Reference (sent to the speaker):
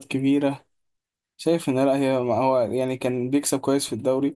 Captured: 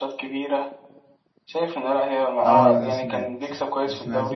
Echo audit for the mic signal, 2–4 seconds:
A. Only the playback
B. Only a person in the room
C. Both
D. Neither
C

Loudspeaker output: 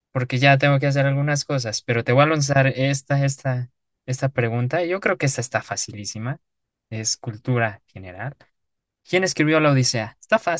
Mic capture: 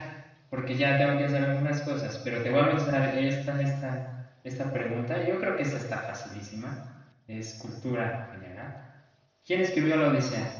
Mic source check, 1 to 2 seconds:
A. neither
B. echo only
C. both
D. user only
B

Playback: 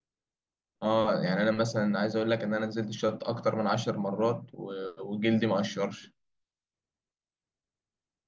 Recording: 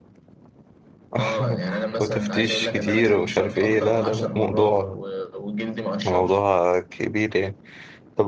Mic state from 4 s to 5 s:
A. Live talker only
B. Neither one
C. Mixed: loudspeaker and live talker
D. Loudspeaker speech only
C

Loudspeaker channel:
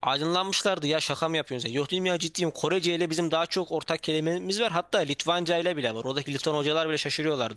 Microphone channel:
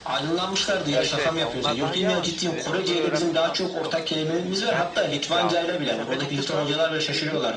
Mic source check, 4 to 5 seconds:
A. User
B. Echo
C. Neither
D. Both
D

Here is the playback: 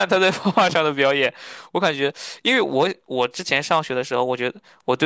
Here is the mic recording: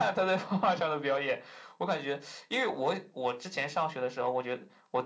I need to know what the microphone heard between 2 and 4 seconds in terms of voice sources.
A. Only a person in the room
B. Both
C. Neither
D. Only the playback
D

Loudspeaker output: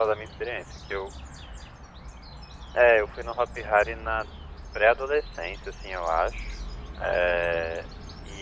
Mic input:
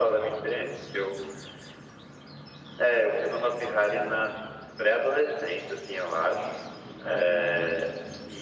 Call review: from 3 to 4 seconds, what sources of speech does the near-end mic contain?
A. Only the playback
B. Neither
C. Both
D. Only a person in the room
A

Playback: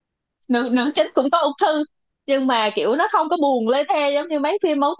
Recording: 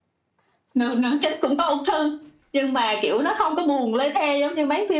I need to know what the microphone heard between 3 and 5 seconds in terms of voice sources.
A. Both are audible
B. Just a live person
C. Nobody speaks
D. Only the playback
D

